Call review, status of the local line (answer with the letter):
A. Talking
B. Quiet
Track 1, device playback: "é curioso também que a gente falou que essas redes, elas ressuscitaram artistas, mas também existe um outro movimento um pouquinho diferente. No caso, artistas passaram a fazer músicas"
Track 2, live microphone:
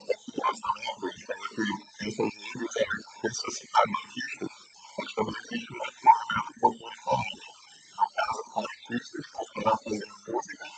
B